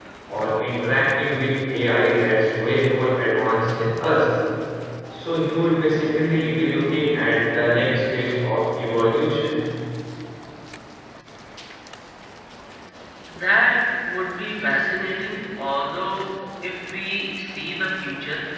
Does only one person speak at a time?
Yes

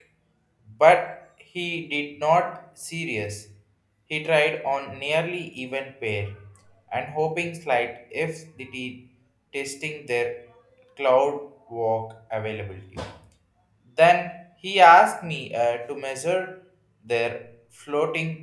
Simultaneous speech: No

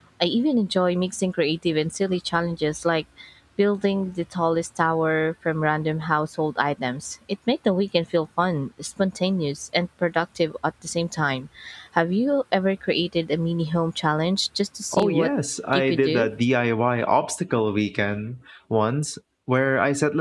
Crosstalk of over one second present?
No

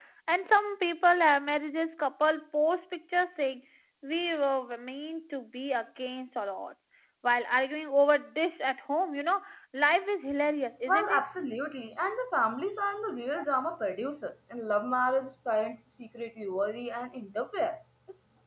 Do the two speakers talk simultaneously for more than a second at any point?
No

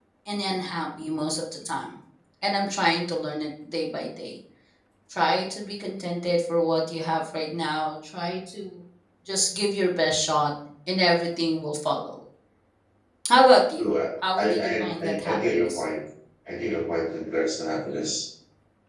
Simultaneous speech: Yes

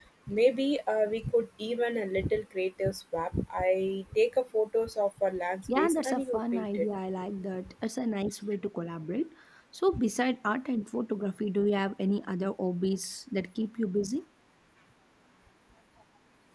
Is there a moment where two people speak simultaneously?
Yes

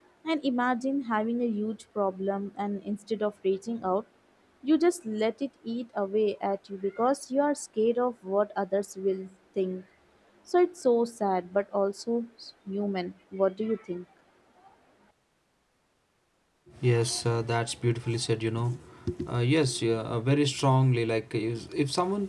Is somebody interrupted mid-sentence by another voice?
No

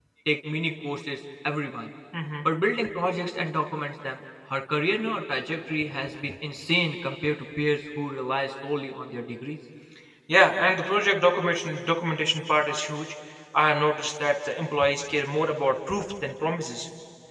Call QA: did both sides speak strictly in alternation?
Yes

